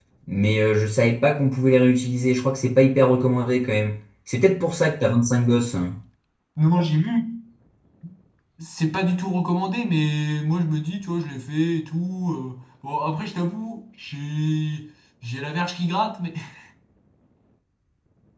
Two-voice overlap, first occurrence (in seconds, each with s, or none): none